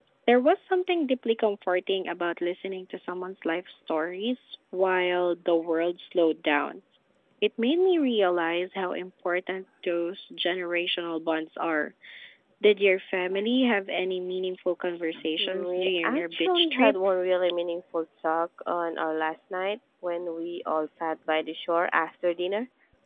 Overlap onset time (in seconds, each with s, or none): 15.1 s